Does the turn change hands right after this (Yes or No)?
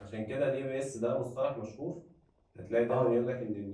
No